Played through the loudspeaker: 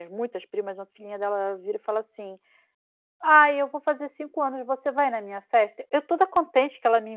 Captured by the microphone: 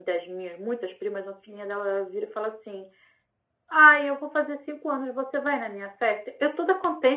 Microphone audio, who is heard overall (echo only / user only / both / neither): echo only